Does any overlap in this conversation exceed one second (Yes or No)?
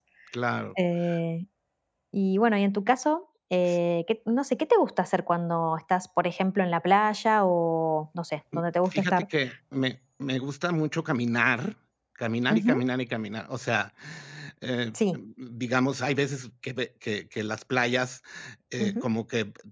No